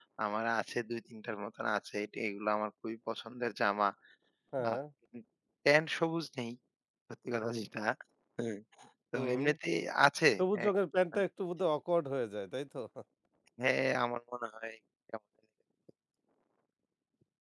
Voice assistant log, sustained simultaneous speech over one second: none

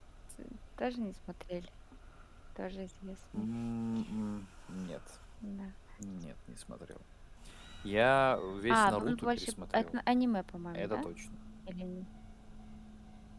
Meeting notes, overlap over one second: present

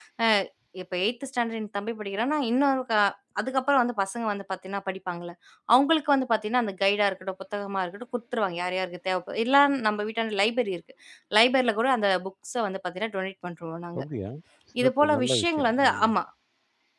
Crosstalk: present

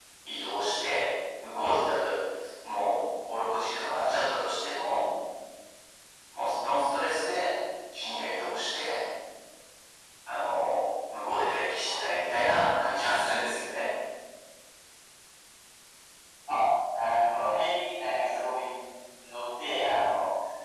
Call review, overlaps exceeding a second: none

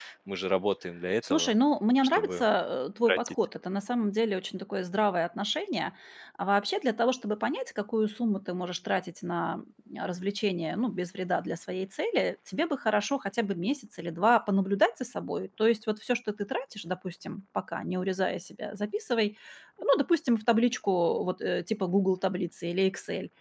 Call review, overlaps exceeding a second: none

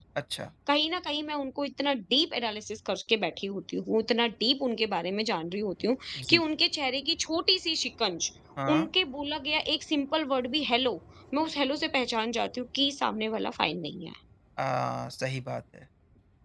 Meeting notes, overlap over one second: none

